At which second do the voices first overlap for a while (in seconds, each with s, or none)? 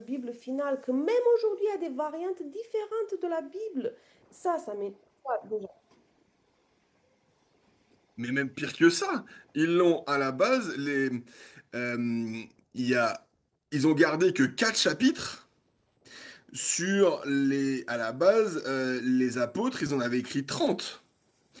none